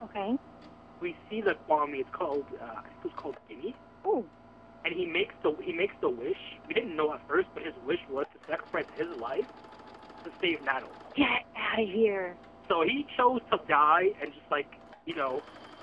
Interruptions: none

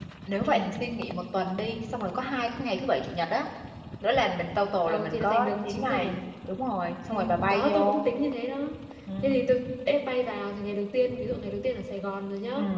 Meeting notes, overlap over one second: present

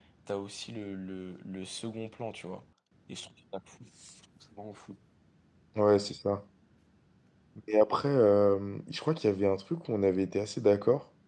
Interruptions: none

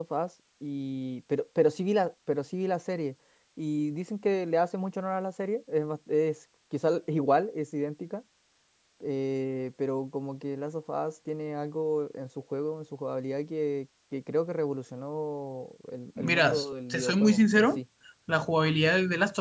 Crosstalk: present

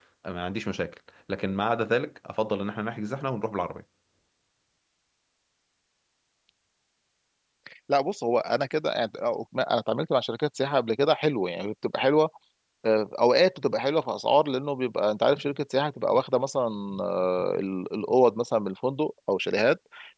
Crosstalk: none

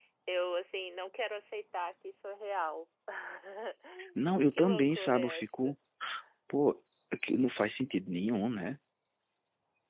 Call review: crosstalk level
present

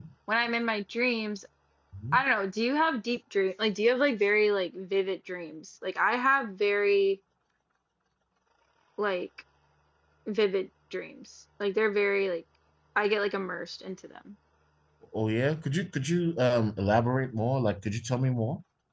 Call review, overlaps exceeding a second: none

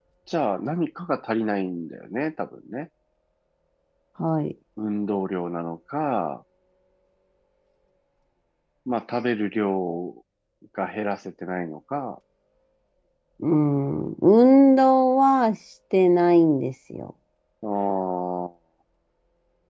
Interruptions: none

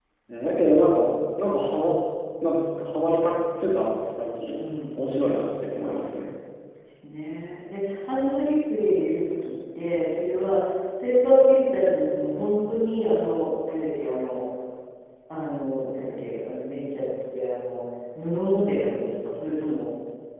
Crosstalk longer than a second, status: none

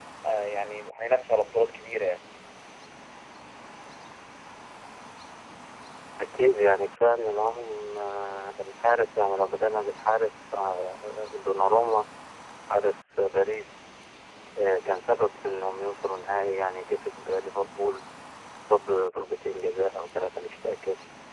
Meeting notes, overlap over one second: none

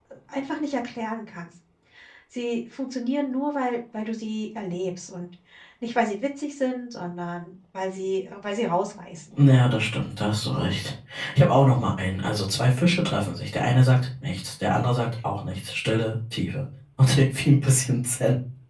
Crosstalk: none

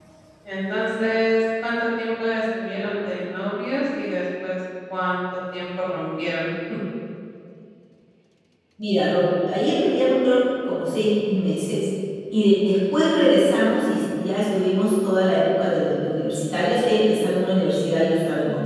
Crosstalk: none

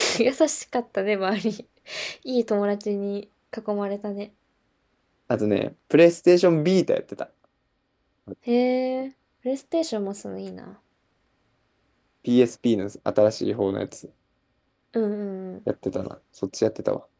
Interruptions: none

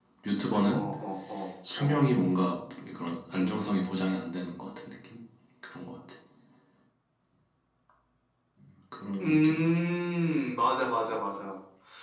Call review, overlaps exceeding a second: none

